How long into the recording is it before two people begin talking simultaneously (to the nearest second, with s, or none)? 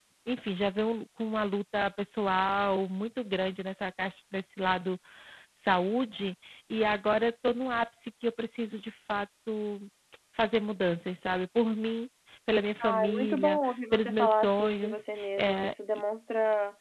13 s